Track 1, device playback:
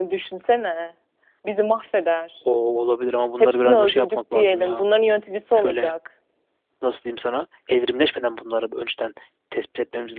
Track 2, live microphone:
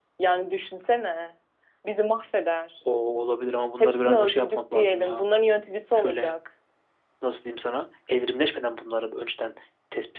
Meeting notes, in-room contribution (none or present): none